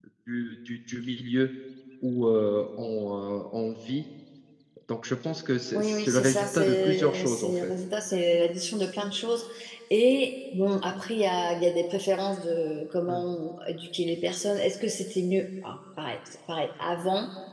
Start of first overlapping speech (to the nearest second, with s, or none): 6 s